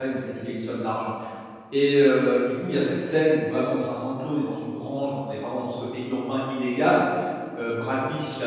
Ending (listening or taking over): listening